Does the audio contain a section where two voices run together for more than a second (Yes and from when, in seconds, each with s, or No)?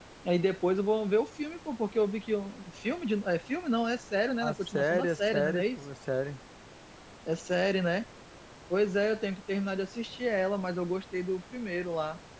Yes, from 4.4 s